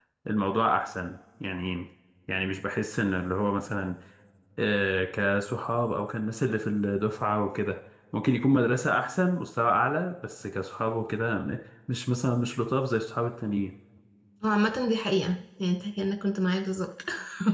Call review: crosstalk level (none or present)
none